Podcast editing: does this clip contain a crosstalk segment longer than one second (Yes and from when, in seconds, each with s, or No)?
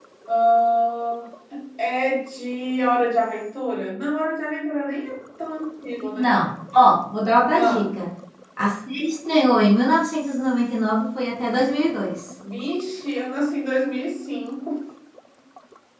No